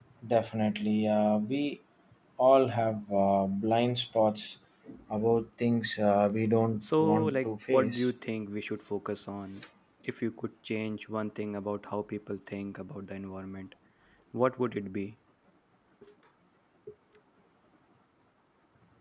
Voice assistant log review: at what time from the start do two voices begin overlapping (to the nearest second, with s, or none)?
7 s